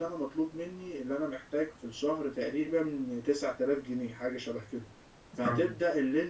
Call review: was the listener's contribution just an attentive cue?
Yes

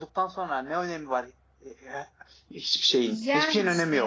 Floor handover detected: Yes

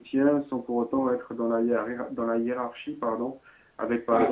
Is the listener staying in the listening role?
Yes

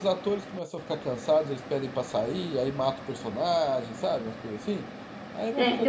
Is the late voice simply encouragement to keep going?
No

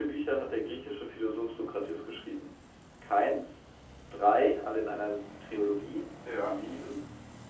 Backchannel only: Yes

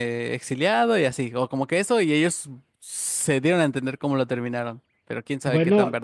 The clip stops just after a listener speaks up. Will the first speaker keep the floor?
No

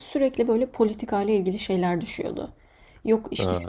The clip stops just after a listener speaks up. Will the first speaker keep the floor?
Yes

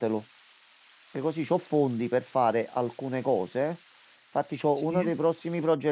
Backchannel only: Yes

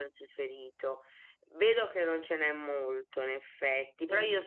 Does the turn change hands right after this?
No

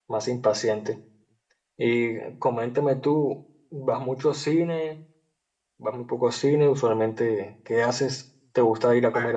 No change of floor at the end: Yes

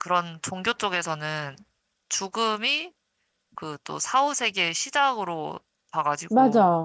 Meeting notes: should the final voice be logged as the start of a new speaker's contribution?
No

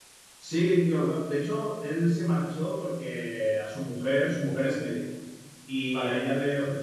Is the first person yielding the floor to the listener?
No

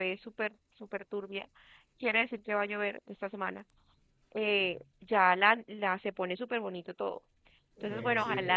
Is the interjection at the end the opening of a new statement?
No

